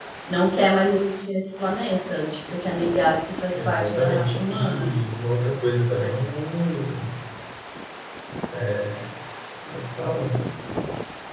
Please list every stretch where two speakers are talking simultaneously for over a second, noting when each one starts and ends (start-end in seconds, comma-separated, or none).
3.5-5.0